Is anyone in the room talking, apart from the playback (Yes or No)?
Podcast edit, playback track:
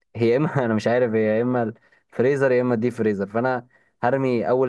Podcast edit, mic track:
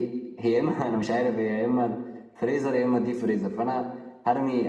No